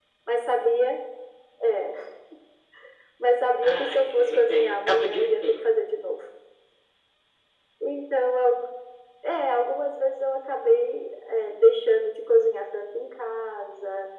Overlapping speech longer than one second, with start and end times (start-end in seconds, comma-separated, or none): 3.6-5.6